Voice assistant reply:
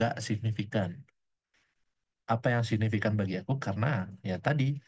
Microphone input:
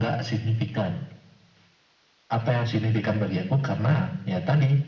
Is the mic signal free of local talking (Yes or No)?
Yes